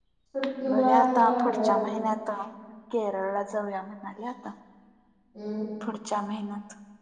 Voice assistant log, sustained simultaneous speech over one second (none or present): present